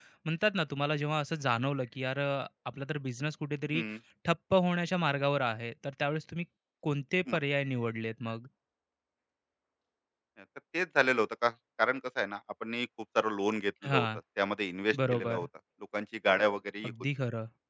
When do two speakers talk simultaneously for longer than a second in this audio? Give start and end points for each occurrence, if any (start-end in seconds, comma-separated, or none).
none